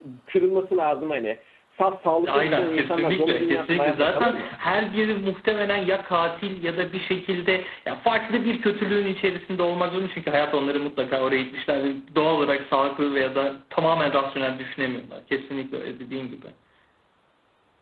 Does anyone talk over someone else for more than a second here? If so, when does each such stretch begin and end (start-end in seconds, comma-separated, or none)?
2.3-4.5